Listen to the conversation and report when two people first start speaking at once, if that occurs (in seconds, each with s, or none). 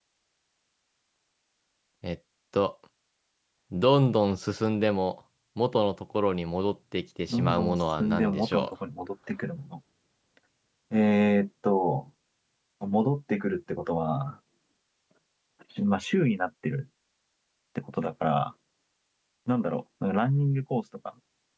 7.3 s